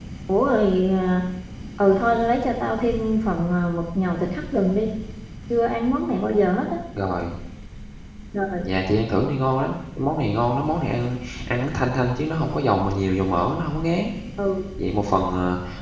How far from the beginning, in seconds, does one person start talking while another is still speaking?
none

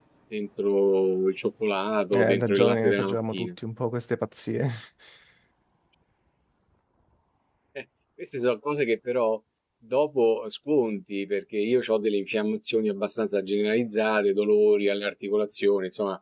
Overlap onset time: 2 s

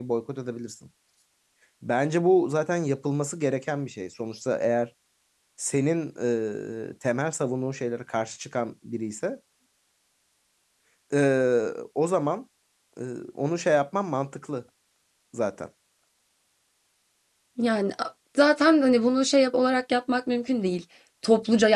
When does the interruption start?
none

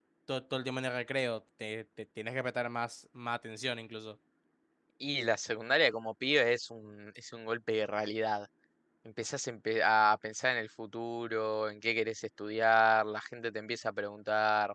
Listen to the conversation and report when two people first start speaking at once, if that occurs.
none

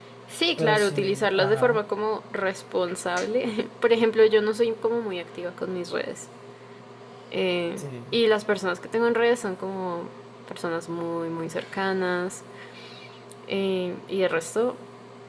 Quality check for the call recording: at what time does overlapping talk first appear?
1 s

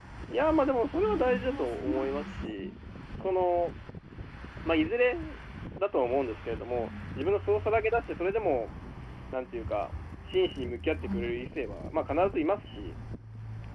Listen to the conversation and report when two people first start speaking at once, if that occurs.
1 s

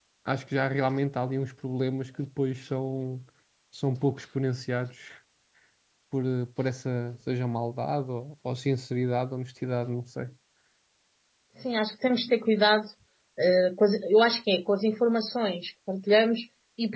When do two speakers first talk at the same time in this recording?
none

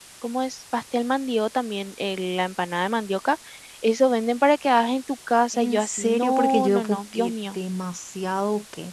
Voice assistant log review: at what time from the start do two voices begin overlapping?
6 s

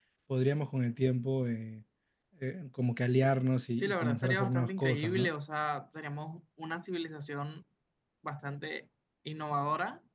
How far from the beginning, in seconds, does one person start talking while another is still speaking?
4 s

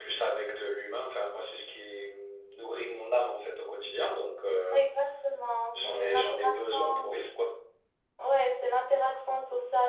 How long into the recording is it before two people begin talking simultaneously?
6 s

